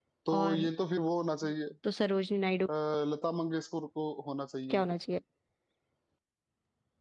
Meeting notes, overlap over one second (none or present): none